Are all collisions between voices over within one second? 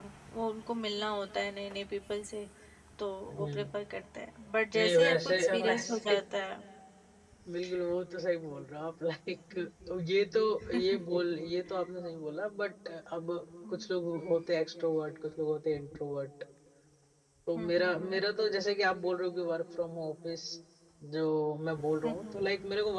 No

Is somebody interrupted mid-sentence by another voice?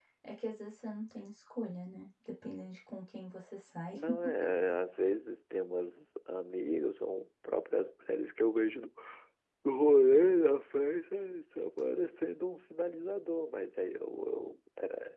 No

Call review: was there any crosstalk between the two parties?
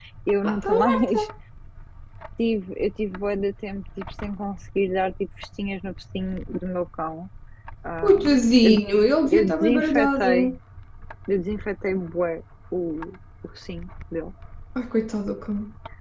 Yes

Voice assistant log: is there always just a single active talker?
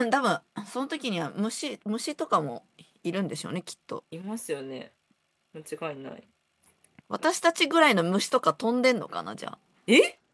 Yes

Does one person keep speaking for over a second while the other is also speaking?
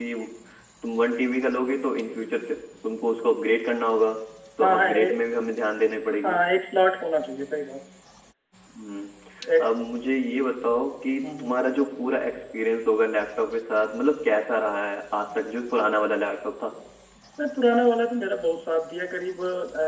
No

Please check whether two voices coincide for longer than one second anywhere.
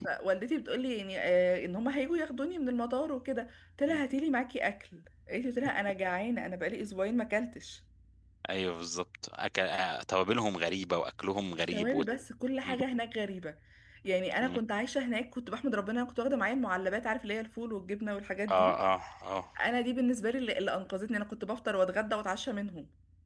No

